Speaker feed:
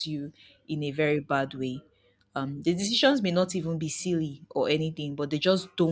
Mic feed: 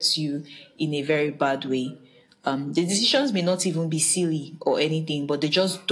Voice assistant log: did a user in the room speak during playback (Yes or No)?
No